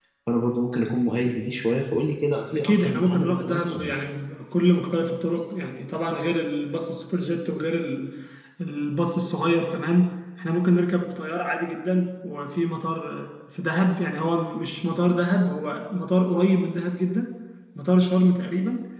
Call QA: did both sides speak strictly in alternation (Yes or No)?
No